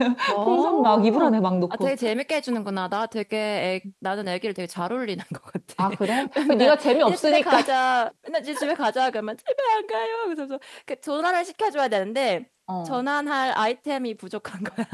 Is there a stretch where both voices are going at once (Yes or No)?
Yes